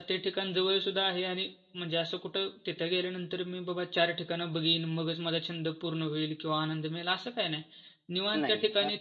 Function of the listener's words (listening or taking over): listening